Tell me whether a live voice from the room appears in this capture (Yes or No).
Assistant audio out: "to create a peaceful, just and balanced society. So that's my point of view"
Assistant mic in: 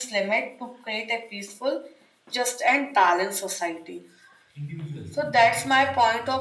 Yes